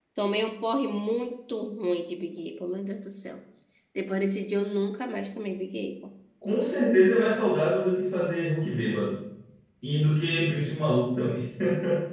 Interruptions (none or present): none